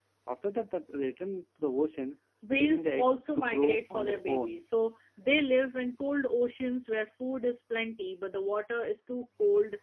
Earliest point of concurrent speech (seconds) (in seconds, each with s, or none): 2.4 s